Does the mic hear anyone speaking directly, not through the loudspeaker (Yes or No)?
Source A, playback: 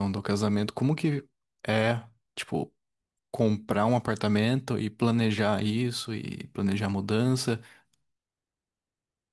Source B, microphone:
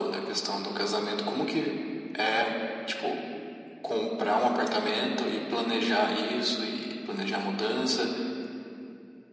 No